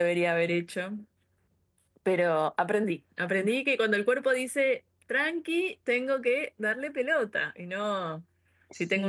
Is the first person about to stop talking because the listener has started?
No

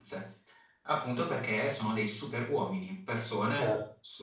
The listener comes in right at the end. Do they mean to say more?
No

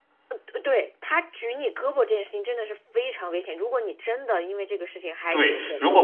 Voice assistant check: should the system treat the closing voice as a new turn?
Yes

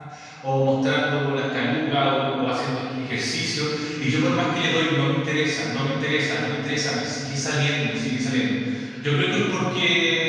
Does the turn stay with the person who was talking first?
Yes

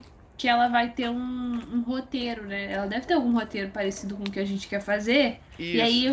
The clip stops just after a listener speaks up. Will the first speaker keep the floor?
Yes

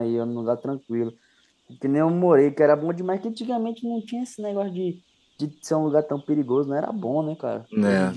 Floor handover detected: Yes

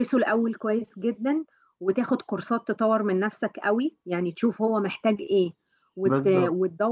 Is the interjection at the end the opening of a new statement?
No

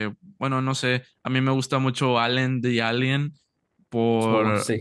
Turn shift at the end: No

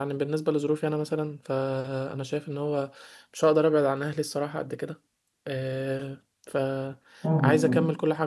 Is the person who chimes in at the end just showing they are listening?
Yes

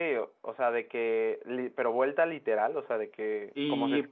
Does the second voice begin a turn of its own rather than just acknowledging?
No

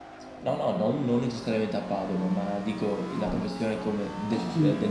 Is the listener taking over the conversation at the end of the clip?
No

